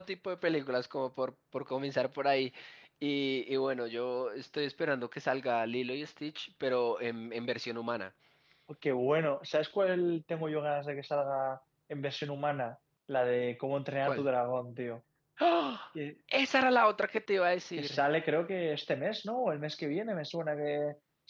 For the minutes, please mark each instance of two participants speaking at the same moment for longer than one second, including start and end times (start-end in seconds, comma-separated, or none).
none